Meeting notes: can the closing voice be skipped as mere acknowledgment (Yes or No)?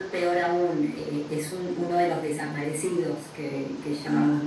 Yes